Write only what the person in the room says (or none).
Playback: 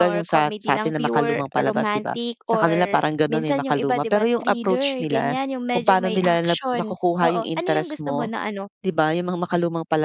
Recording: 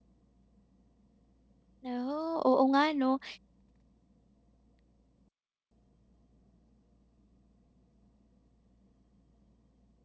Naku oo, nga 'no,